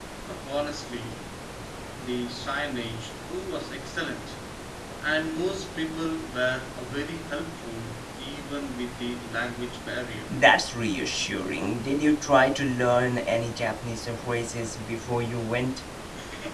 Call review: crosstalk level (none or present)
none